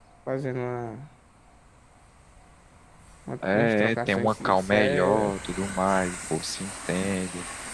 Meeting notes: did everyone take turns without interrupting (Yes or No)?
No